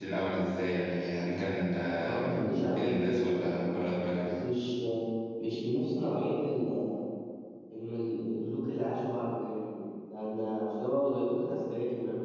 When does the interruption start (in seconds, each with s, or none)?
2.0 s